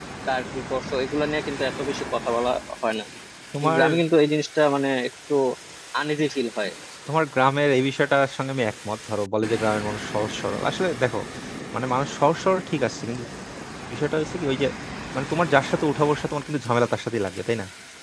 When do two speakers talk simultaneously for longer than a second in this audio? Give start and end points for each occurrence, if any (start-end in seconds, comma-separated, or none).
none